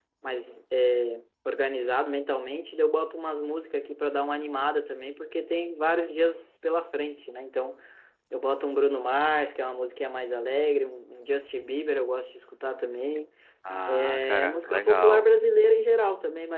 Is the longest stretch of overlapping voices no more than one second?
No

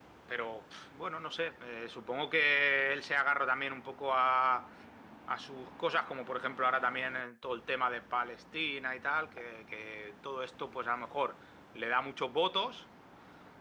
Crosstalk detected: No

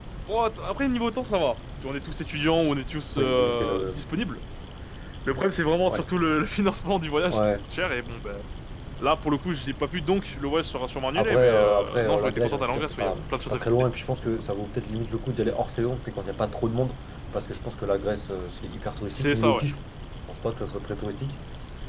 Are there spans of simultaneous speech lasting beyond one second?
Yes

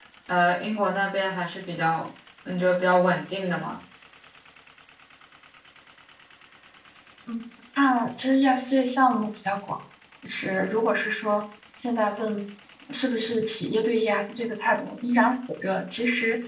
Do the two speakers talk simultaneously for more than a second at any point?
No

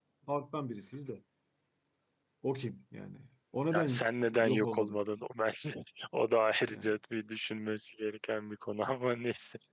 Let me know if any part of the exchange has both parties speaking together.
Yes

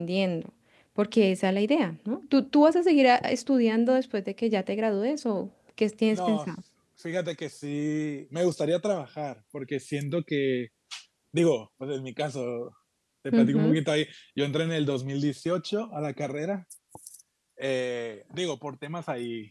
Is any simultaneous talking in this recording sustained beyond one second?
No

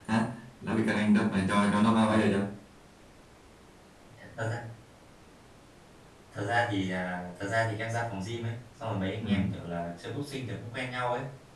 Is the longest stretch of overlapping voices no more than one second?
Yes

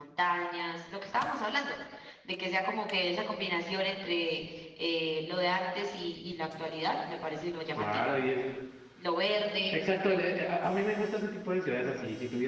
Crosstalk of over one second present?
No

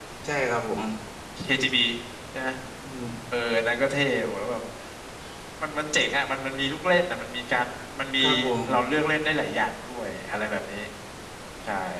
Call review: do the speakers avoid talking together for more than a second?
Yes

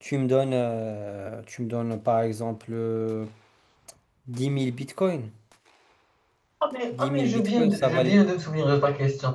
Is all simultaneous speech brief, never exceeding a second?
No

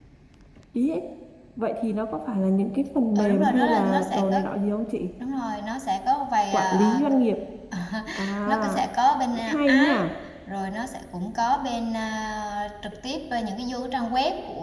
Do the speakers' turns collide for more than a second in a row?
Yes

